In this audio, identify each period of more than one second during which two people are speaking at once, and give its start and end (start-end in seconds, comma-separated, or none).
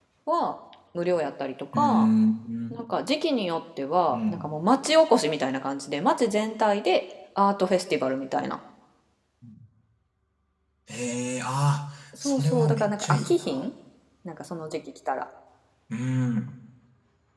12.2-13.6